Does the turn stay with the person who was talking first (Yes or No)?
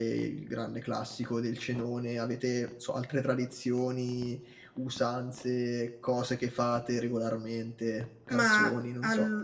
No